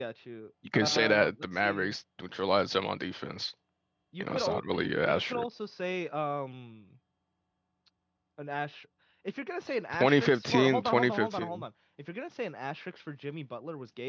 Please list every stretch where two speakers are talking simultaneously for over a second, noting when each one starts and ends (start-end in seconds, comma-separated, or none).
0.7-1.9, 4.2-5.5, 9.9-11.6